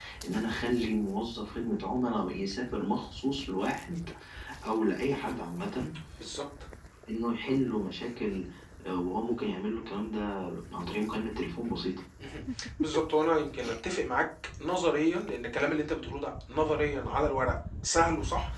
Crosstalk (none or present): none